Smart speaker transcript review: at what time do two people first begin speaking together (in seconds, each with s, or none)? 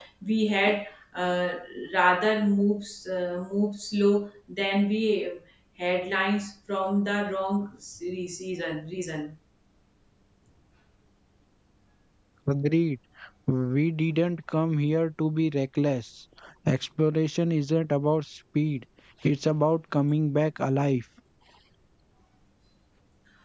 none